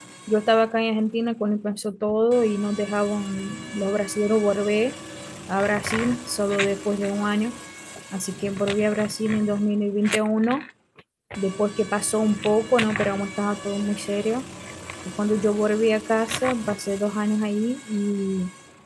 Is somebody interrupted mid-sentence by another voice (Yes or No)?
No